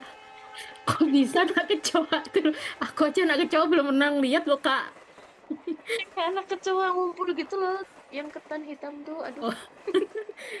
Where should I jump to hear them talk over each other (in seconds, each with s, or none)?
none